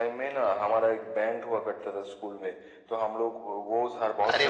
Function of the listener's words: listening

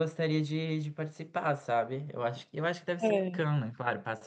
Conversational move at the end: listening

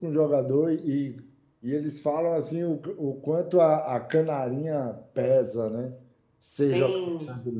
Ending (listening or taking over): listening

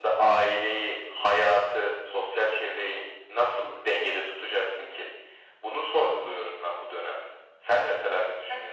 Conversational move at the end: taking over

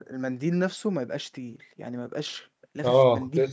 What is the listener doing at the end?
taking over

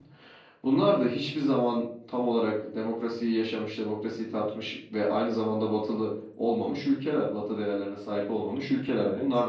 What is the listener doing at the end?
listening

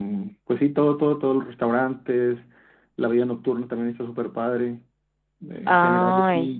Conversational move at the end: listening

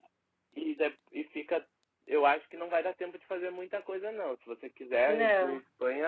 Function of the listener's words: listening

